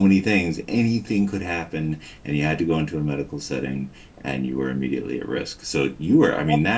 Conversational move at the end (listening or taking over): listening